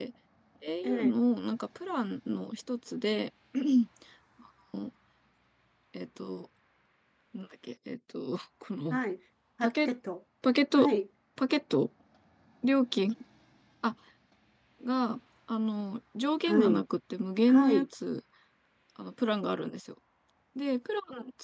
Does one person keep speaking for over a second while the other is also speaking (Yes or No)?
No